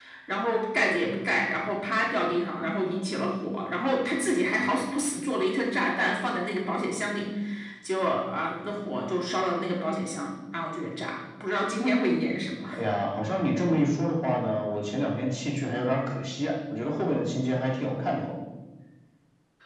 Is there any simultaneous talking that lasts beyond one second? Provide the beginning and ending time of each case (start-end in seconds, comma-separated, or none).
none